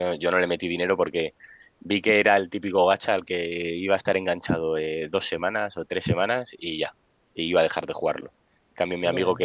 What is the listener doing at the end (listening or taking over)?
listening